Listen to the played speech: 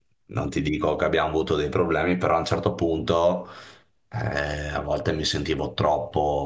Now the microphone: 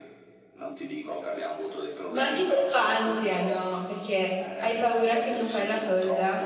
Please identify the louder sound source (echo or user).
user